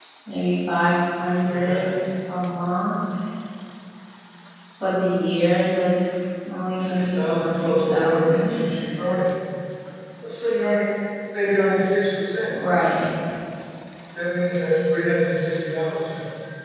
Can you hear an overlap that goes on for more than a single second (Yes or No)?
Yes